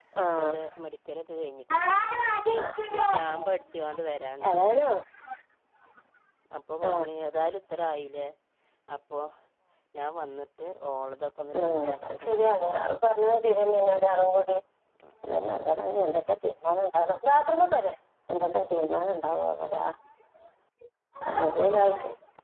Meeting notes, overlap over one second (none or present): present